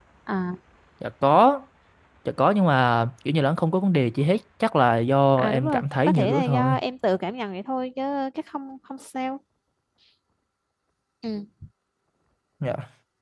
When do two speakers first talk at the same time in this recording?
5.4 s

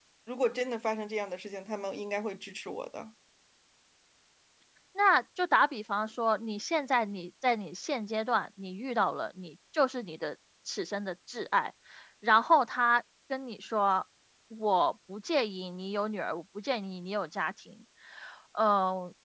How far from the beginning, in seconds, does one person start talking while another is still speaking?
none

